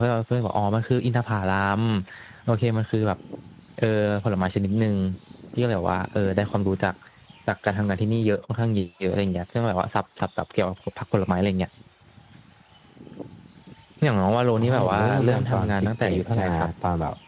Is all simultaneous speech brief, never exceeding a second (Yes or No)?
No